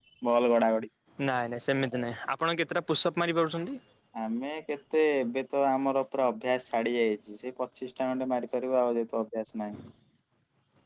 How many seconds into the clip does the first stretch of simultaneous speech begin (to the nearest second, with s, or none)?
none